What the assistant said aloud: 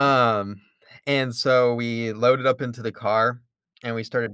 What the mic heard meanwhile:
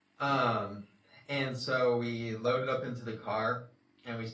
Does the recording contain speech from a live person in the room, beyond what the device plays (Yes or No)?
No